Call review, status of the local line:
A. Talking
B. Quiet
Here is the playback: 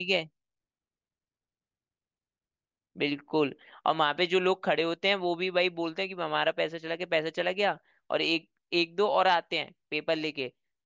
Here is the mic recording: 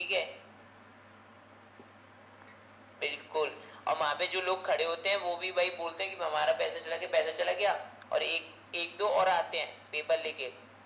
B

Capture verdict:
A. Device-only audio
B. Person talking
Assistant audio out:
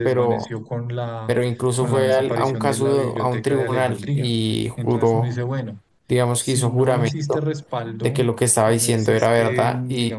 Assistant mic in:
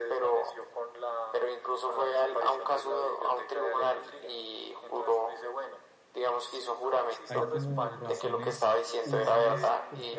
B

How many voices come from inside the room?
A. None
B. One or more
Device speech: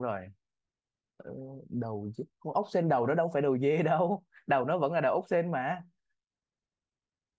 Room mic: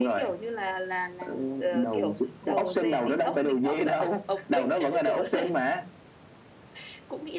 B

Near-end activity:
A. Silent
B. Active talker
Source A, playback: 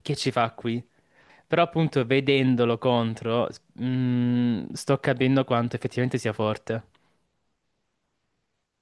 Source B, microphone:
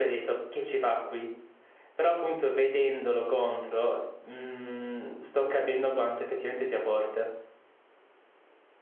A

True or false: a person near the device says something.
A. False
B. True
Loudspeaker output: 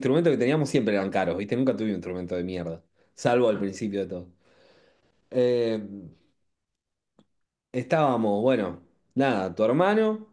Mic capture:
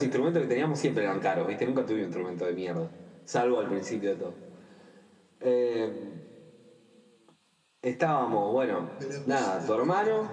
B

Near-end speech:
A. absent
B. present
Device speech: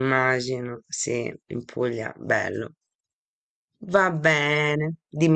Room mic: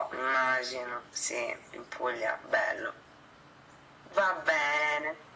A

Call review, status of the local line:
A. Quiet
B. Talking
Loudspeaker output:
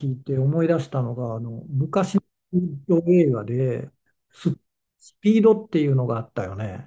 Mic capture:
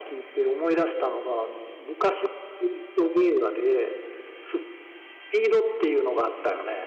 A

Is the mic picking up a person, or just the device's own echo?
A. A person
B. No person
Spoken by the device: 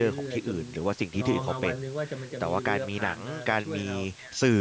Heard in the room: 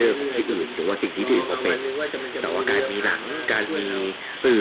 B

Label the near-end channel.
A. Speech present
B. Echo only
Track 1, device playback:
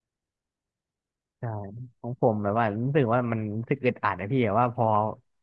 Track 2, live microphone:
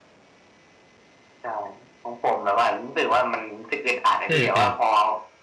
A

